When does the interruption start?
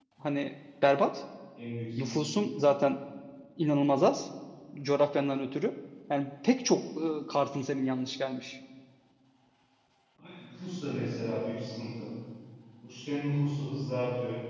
none

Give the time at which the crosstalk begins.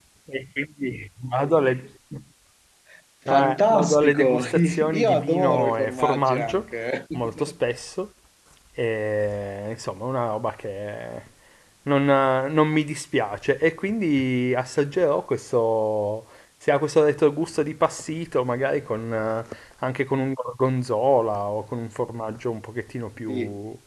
3.3 s

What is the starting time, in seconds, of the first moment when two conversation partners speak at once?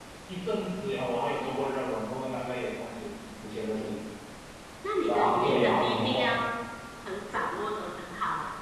5.1 s

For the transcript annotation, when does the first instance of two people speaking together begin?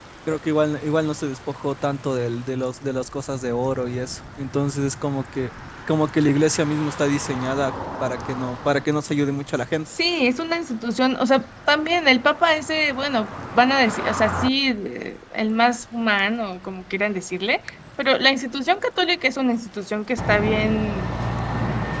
none

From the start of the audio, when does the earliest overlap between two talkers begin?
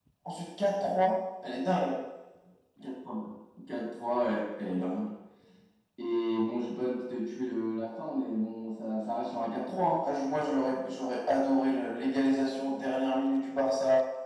none

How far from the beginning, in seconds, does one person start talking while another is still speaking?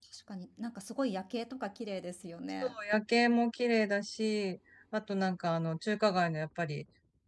none

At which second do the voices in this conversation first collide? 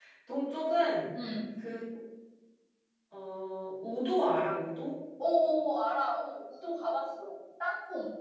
none

